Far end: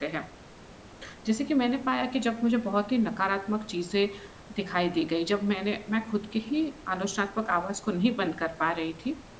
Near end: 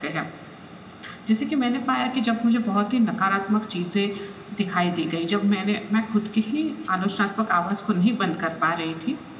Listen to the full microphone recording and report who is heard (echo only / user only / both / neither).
echo only